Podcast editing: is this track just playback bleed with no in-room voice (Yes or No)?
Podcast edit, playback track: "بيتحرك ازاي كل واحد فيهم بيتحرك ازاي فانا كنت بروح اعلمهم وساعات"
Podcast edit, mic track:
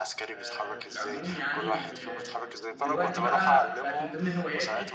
No